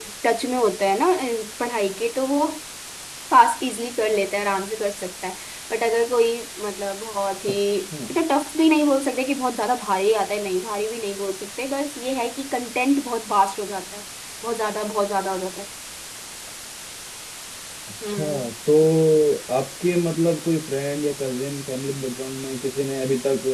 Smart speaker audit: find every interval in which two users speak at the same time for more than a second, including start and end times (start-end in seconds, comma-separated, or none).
none